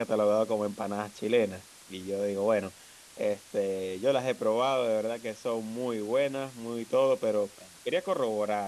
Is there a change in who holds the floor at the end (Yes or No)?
No